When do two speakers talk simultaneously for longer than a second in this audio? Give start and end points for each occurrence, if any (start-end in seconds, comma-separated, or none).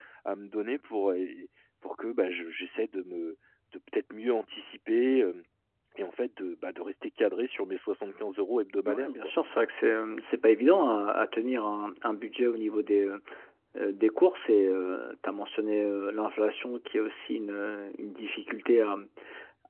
none